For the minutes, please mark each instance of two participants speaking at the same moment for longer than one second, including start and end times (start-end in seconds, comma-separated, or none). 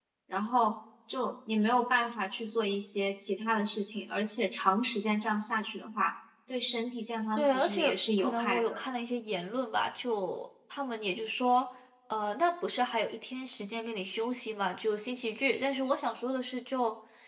7.4-8.8